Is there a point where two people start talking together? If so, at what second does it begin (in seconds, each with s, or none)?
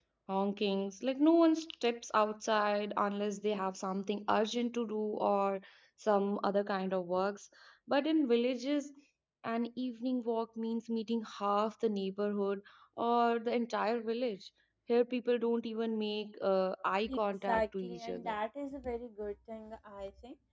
17.1 s